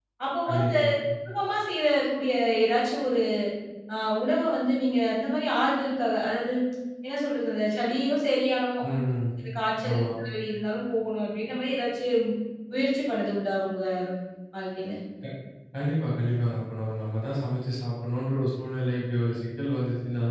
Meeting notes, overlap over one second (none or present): none